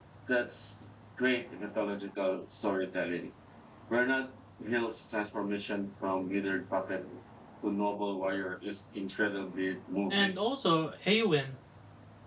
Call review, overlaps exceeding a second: none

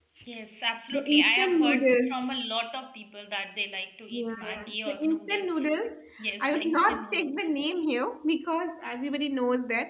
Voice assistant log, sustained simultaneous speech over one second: present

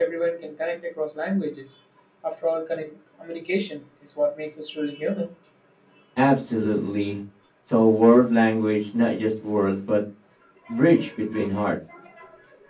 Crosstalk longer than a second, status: none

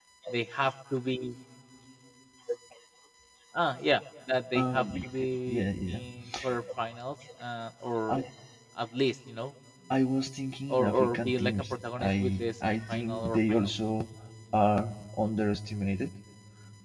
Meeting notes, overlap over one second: present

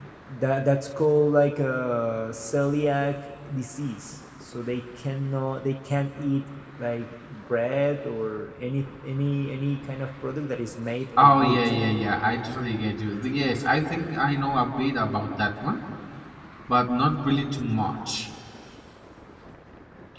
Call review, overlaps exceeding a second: none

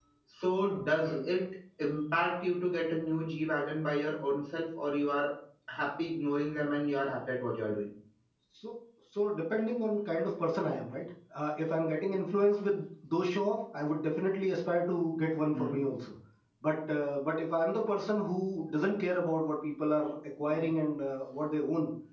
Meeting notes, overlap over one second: none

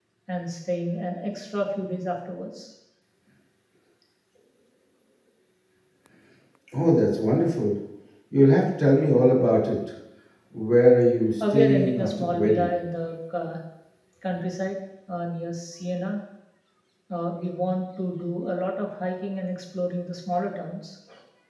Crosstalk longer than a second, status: present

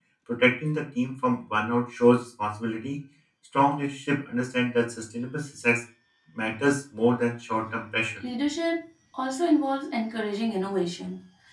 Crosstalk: none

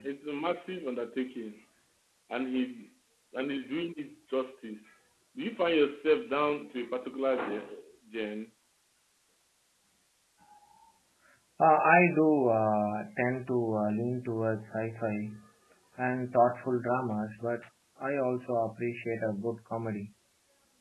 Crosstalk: none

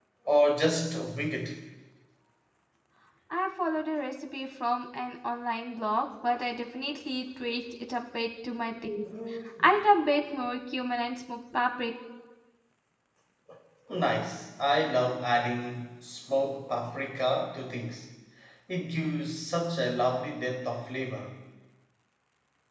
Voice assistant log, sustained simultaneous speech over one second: none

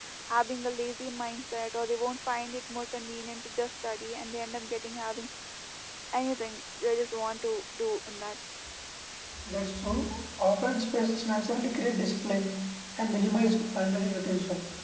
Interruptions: none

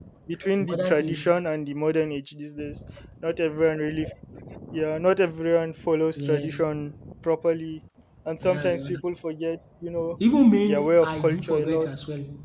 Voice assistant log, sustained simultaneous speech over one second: present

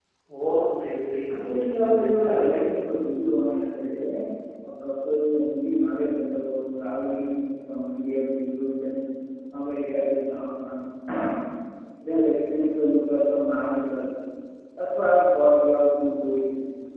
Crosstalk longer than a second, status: present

